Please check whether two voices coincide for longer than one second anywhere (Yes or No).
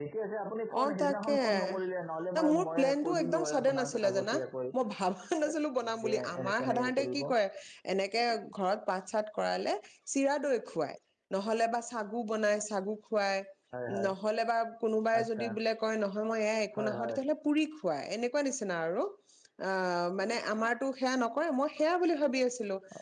Yes